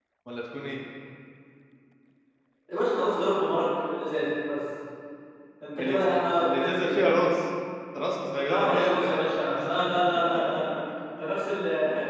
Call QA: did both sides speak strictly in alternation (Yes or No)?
No